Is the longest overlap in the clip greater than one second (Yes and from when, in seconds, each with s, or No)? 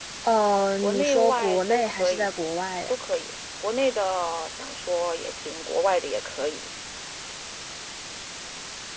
Yes, from 0.8 s